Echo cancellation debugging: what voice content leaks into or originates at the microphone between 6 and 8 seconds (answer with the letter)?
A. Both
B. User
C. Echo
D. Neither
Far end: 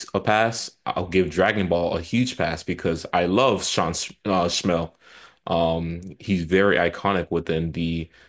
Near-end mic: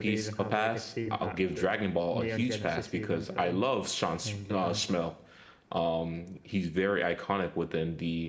C